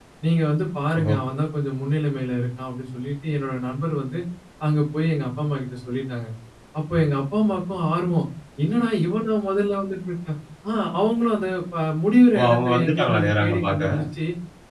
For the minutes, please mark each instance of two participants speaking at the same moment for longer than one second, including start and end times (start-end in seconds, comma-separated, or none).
12.4-14.0